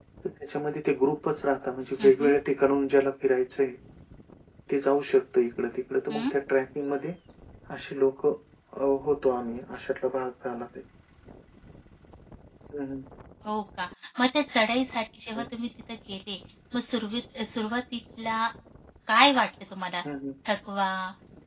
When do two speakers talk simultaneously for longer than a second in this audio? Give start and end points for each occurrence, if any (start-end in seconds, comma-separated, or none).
none